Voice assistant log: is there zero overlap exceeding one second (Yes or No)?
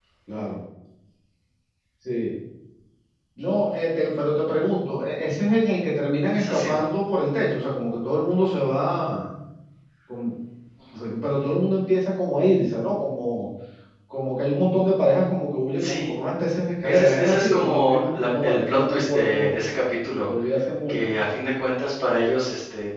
No